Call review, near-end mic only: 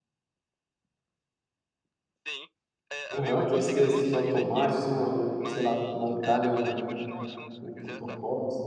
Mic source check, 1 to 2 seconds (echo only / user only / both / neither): neither